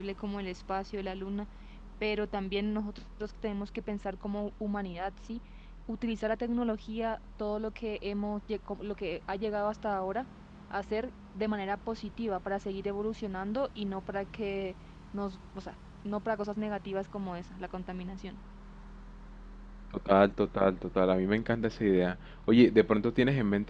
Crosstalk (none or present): none